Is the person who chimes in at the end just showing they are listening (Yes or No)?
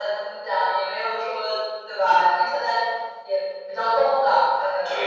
No